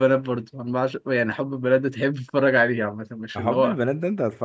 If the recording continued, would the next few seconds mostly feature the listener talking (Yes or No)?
Yes